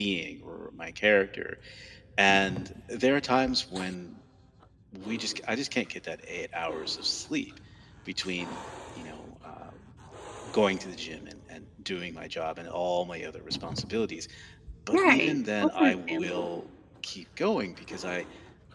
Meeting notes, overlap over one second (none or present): present